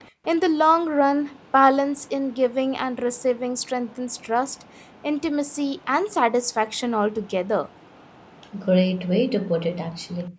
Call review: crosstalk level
none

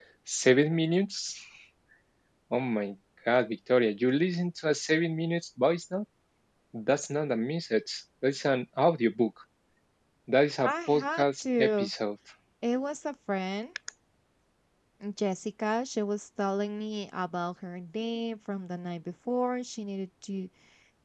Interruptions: present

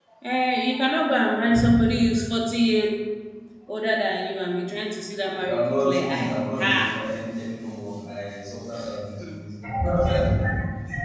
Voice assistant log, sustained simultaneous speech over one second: present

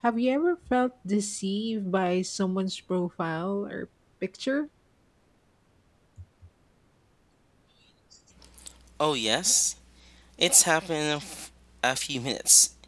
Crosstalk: none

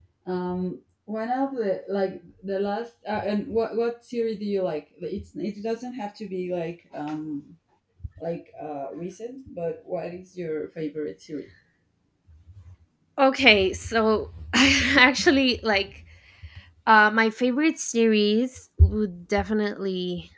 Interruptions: none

